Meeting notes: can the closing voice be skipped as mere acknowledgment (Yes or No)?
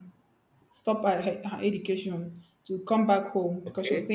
Yes